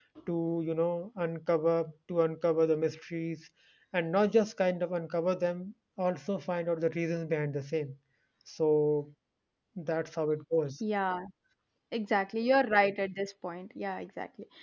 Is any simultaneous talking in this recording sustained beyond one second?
No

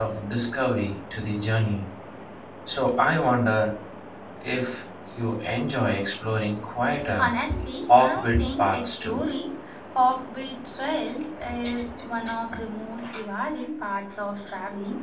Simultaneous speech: Yes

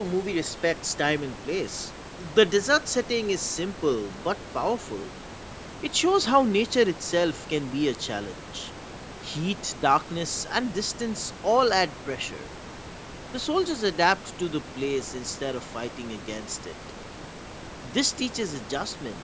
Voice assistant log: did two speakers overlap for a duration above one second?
No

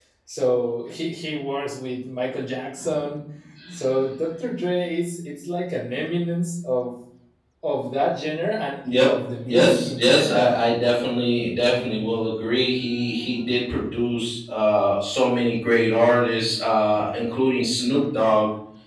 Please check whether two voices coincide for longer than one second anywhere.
Yes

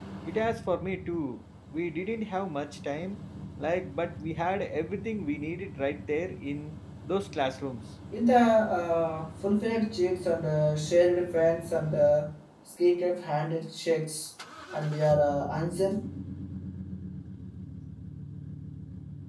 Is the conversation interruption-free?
Yes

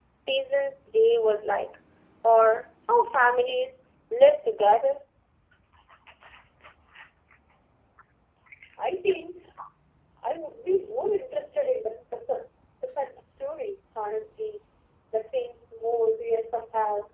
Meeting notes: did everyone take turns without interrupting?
Yes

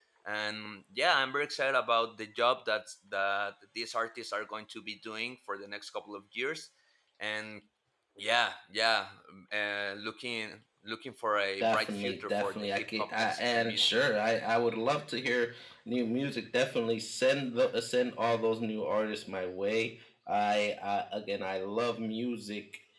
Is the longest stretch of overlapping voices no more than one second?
No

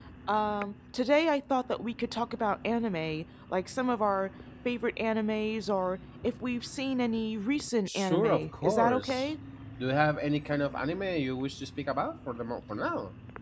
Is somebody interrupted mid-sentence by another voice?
Yes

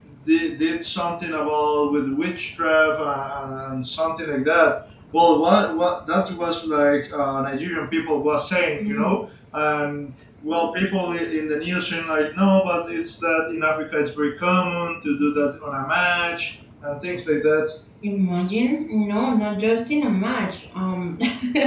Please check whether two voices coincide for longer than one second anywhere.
No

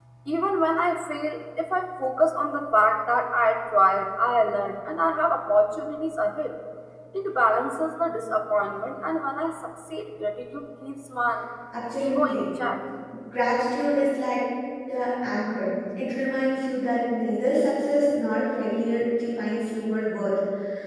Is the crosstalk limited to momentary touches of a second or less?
Yes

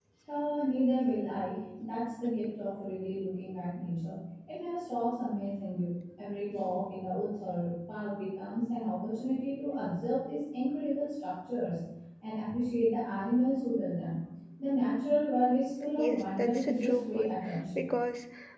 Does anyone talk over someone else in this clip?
Yes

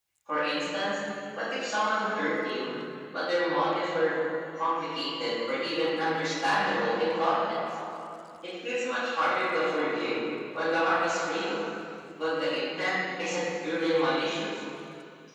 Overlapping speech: No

